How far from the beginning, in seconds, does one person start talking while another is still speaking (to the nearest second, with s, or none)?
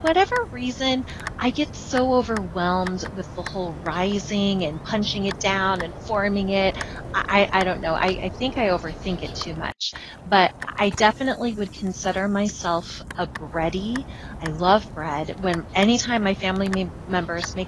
none